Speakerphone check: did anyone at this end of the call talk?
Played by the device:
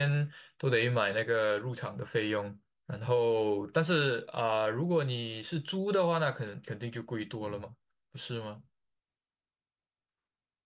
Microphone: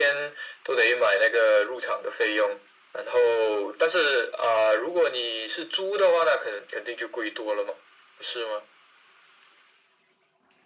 No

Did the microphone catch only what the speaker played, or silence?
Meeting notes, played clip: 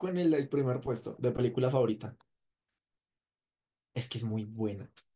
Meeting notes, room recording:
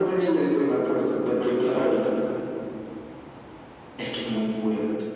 Yes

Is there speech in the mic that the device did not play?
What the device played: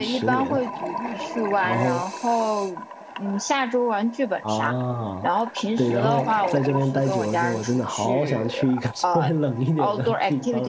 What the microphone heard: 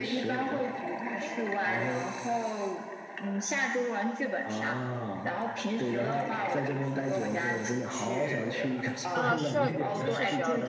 Yes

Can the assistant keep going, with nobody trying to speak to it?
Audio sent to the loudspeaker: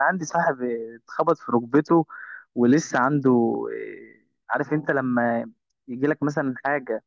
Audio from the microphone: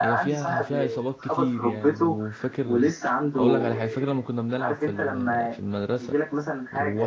No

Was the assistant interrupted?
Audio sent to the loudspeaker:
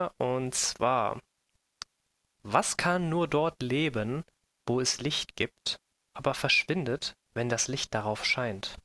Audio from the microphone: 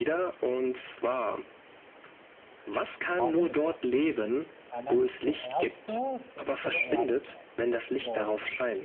Yes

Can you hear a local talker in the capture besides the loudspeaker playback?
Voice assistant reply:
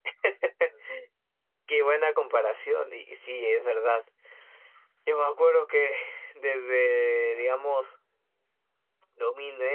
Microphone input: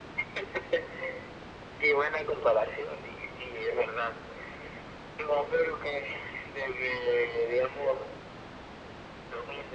No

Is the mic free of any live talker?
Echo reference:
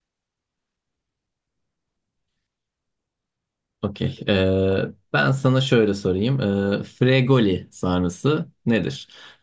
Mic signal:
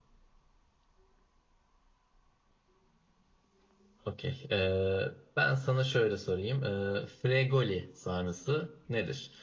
Yes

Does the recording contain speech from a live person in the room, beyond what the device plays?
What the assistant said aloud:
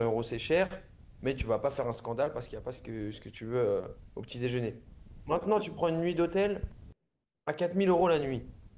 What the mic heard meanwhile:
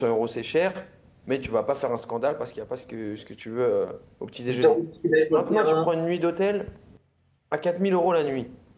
Yes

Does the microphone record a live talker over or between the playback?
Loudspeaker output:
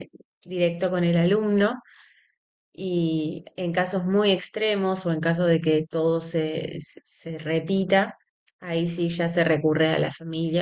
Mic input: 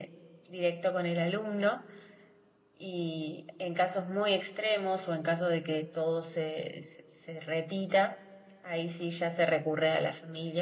No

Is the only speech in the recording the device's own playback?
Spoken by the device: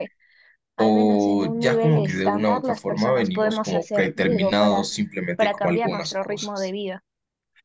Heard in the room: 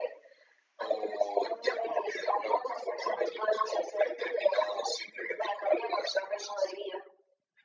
Yes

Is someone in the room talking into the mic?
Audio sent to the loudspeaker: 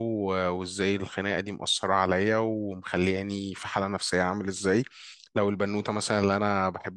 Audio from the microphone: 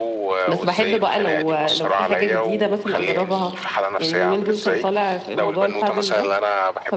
Yes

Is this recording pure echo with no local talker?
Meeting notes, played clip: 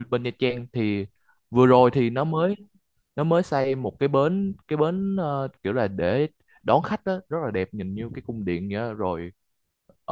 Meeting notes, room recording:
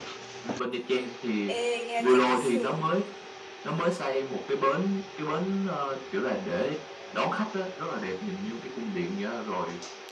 No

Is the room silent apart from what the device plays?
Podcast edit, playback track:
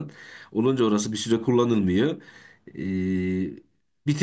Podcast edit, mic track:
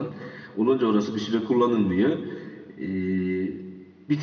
Yes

